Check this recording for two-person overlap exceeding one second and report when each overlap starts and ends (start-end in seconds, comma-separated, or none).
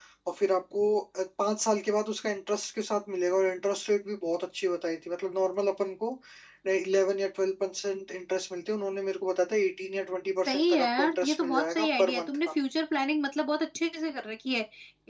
10.5-12.4